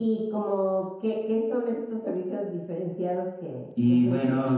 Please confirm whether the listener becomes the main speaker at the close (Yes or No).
Yes